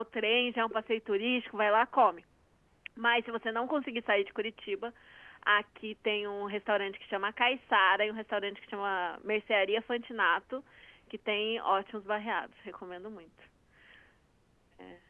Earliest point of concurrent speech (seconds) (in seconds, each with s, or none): none